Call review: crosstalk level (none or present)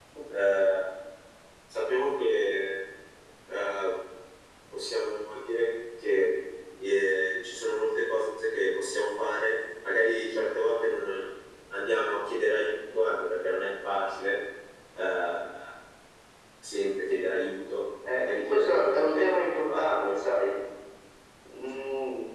present